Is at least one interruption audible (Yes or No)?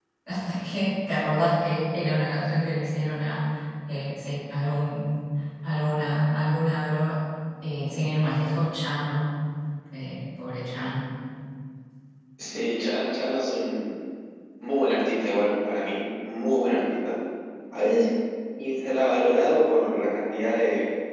No